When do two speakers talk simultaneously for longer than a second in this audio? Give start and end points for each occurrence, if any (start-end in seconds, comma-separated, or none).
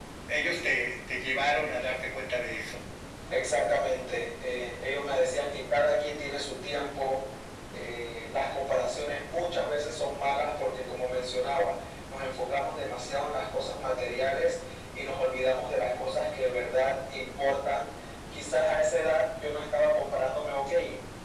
none